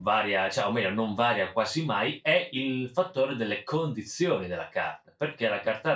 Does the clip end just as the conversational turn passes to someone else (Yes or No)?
No